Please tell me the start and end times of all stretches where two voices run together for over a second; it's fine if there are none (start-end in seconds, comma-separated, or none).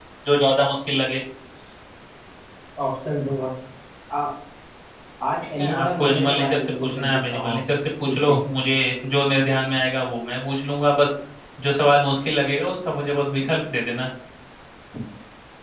5.4-7.6